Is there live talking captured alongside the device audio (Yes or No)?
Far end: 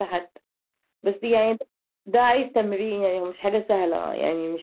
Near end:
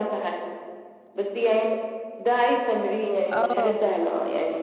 Yes